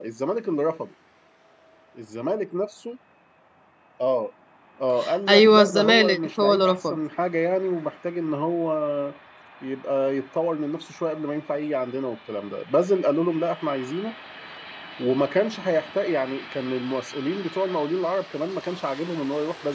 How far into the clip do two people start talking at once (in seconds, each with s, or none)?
5.3 s